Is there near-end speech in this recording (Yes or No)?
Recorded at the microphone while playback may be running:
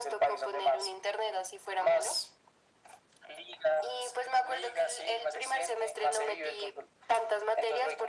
No